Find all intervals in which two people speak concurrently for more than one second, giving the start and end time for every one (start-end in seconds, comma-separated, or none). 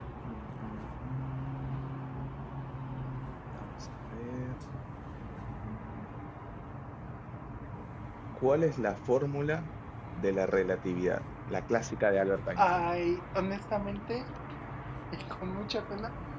none